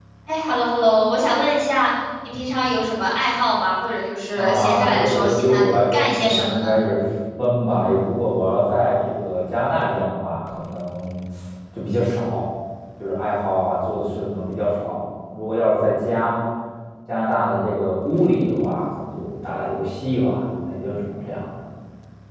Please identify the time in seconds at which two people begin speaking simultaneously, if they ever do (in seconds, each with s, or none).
4.3 s